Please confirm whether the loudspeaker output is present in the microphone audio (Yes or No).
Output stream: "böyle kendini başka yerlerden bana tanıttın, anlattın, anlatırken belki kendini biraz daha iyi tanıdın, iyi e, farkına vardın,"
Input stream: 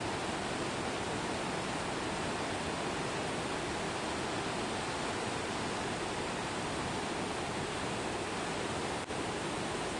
No